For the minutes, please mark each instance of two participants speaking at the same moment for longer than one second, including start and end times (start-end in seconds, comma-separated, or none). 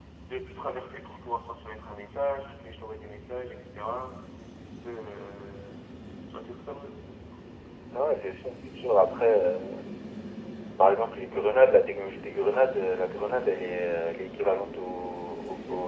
none